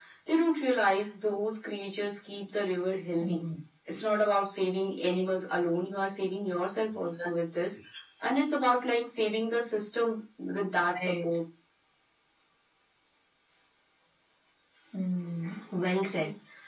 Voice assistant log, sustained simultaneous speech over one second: none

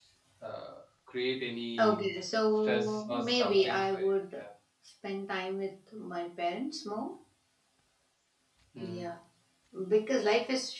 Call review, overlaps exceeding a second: present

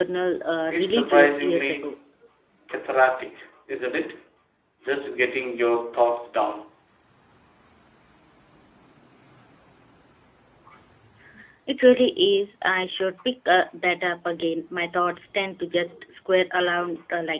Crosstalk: present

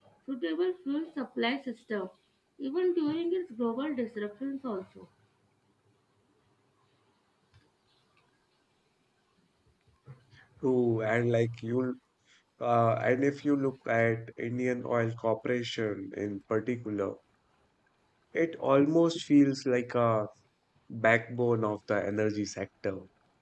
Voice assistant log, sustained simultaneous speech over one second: none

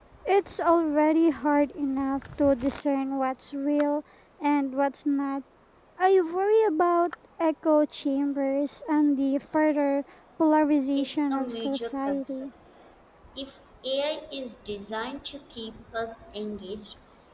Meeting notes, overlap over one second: present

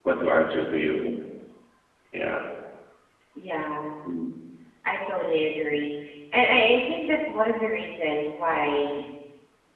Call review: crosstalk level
none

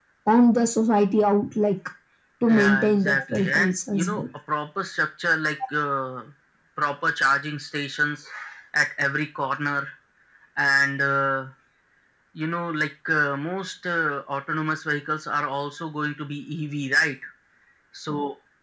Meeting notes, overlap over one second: present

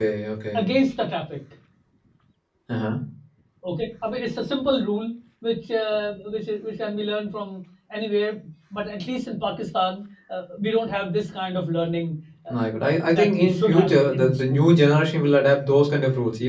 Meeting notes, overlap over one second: present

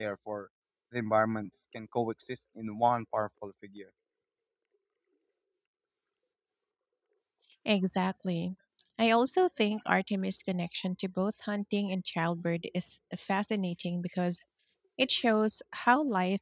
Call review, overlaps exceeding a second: none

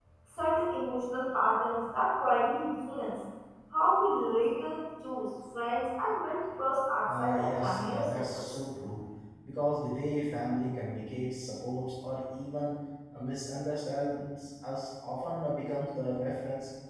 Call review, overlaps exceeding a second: present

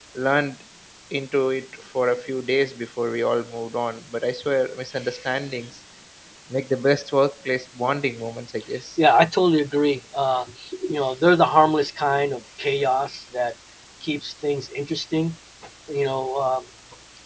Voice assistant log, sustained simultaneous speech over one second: none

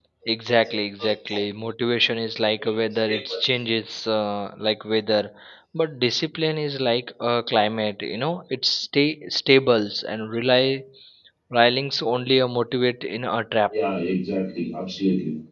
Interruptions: none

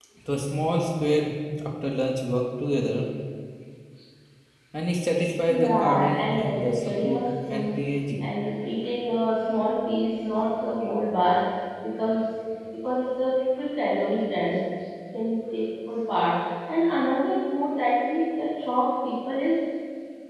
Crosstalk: present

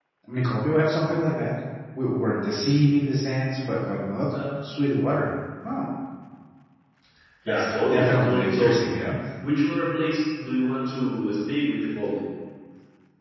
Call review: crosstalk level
present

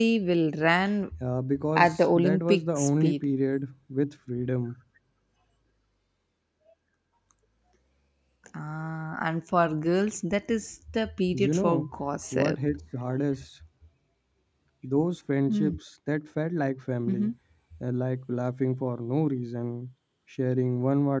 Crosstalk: present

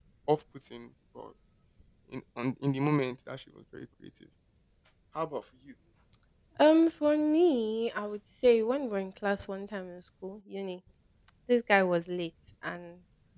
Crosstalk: none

